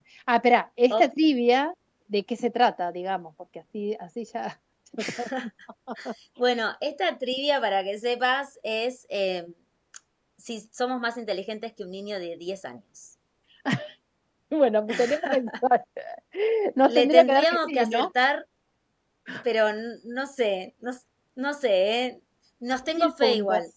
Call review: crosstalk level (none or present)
present